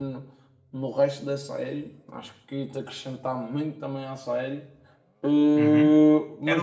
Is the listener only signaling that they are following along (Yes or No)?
No